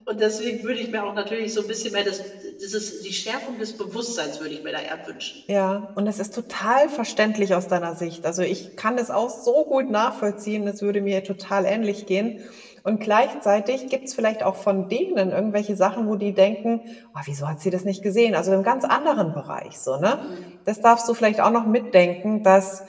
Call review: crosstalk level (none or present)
none